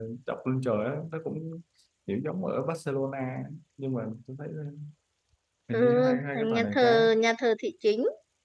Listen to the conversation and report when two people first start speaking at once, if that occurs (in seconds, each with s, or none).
5.7 s